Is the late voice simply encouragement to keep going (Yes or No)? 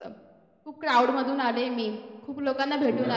Yes